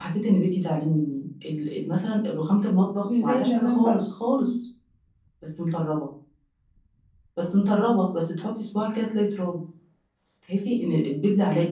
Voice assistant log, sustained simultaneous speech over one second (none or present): present